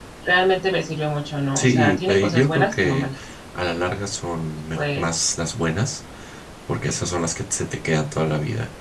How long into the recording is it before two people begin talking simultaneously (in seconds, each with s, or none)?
1.6 s